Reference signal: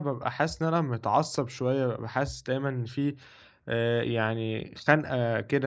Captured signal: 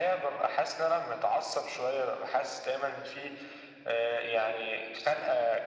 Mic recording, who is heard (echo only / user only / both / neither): echo only